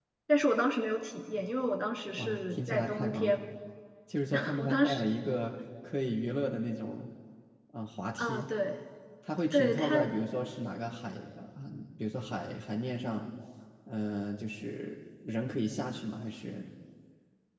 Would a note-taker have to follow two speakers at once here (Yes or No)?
Yes